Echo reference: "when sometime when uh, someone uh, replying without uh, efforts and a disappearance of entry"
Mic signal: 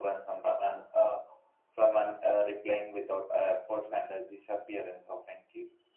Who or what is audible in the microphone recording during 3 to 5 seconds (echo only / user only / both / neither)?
echo only